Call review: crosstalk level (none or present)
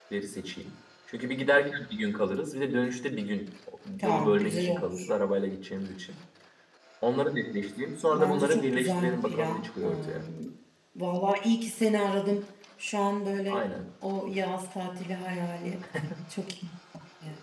present